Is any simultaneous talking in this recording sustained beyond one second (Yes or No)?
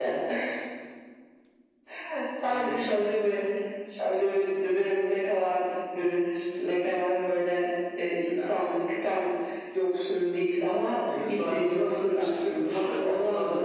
Yes